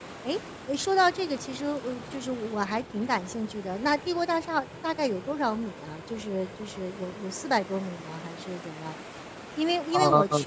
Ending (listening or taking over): listening